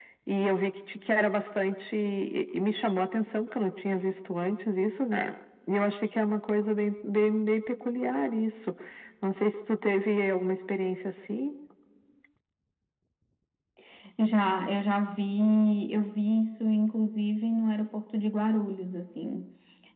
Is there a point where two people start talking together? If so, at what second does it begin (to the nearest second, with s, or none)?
none